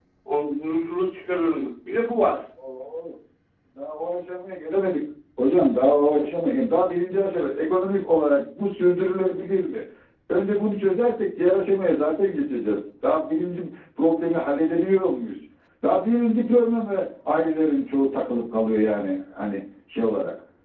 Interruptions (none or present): none